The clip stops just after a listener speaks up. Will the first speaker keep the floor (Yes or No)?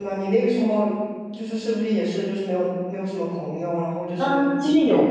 No